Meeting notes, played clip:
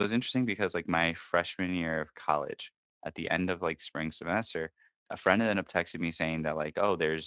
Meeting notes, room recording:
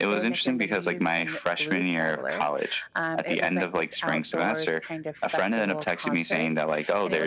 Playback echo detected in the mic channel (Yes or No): Yes